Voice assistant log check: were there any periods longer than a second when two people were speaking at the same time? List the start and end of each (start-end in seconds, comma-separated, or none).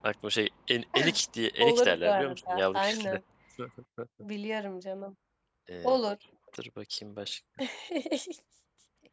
1.6-3.2